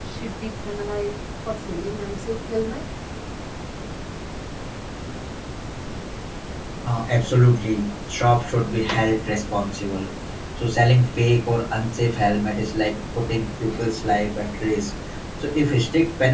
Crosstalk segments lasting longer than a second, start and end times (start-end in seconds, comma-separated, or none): none